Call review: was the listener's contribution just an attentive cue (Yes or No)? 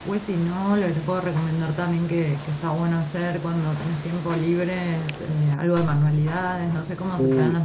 No